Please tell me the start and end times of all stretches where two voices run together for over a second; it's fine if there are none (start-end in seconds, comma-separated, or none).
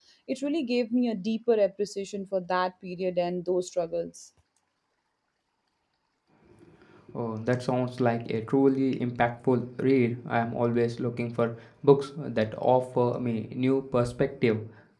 none